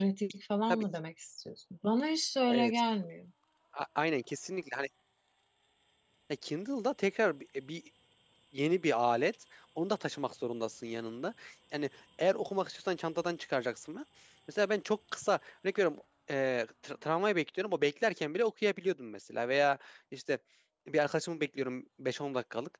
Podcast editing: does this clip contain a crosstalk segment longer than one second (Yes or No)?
No